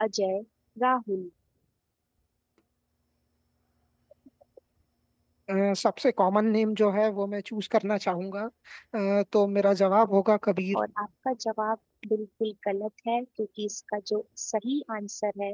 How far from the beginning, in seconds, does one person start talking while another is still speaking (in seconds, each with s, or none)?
none